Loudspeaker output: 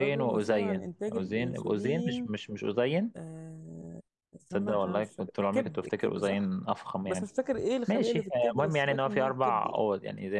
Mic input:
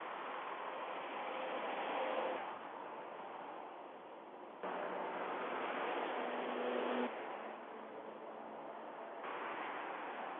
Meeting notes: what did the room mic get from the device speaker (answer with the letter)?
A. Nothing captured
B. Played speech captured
A